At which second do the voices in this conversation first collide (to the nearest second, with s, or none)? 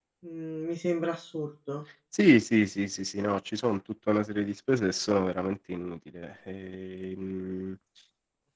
none